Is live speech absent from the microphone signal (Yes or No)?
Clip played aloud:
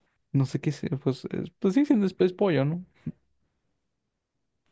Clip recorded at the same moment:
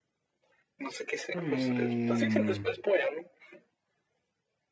No